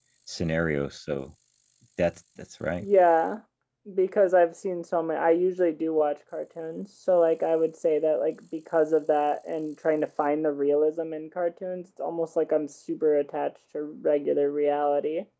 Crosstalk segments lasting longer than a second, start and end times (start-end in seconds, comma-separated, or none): none